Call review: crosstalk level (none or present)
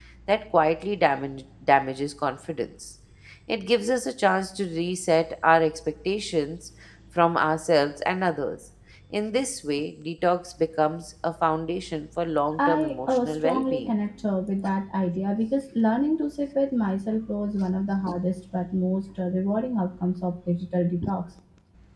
present